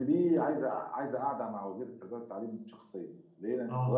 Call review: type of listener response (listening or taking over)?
listening